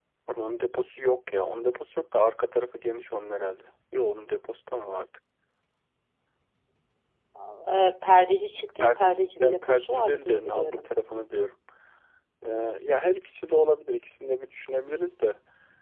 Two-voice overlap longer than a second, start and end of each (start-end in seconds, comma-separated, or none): 8.8-10.9